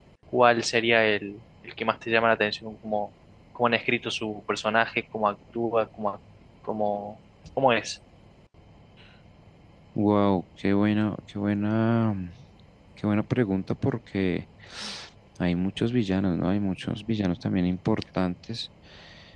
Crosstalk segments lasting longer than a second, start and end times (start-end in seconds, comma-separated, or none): none